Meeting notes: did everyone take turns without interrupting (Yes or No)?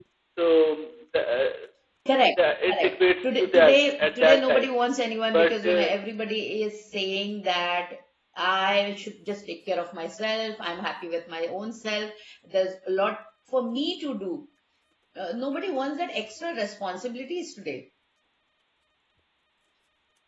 No